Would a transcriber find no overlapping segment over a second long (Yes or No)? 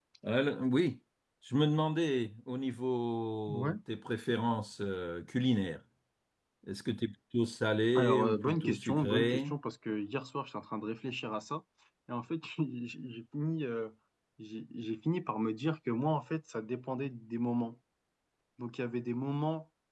No